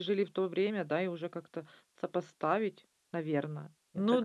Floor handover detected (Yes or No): Yes